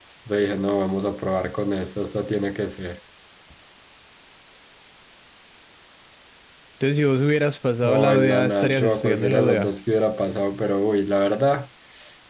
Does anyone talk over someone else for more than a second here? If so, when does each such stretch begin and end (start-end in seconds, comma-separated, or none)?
7.8-9.7